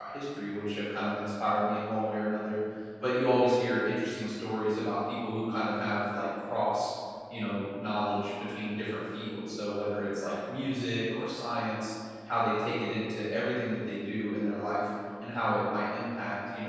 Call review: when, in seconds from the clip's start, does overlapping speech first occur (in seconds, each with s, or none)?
none